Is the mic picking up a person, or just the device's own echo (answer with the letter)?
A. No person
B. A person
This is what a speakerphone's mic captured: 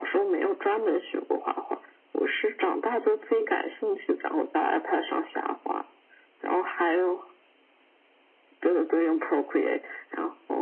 A